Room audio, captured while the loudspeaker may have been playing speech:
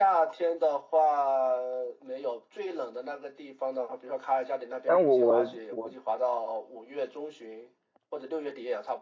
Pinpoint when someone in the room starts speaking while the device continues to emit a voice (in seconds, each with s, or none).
4.8 s